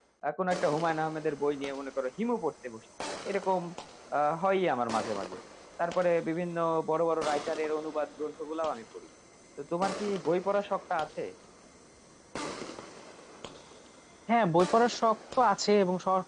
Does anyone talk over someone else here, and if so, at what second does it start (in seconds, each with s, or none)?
none